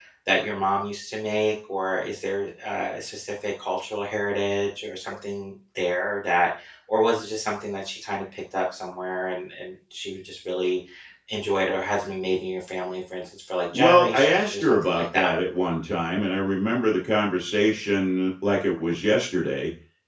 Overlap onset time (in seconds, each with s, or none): 13.7 s